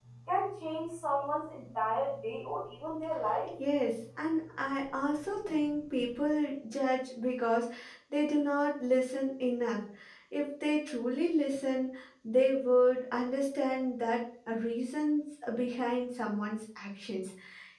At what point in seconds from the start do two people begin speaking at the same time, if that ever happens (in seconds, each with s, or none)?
none